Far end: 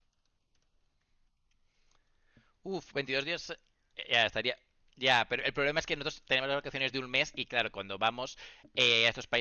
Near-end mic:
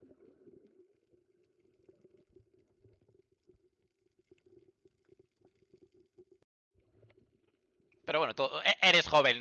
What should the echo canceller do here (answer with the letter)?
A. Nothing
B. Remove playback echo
A